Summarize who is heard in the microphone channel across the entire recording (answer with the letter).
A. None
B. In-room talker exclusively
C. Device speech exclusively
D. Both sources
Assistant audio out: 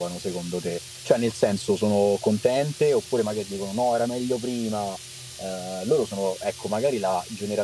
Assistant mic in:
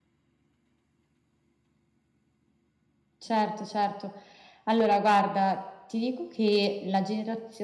B